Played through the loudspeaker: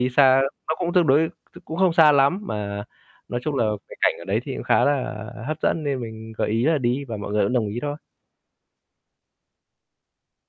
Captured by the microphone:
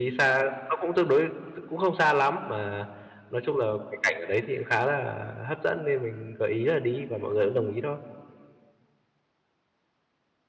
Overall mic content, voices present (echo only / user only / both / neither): echo only